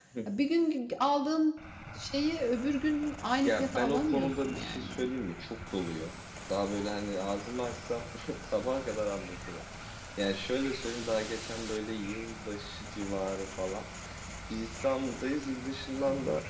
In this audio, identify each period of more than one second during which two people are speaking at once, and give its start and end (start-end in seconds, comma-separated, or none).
3.4-4.9